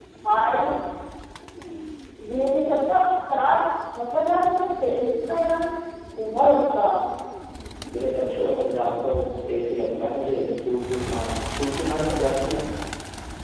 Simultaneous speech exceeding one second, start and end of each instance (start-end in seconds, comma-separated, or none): none